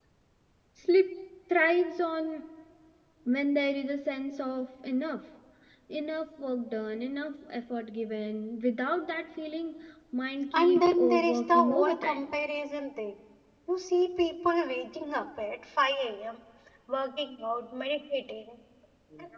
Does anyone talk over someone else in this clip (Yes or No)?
Yes